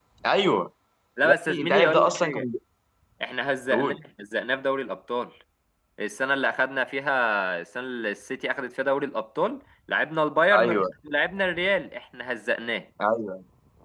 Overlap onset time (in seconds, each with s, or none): 1.2 s